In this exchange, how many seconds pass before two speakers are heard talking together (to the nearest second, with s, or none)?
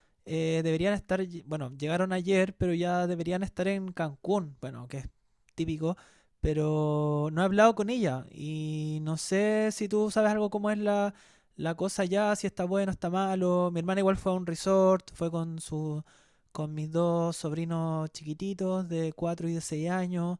none